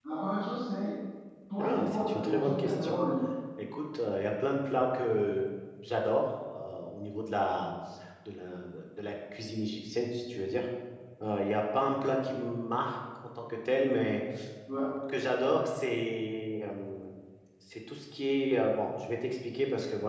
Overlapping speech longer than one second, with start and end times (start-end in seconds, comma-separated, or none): 1.6-3.0